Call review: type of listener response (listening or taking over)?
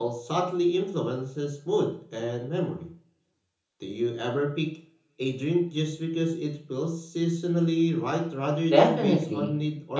taking over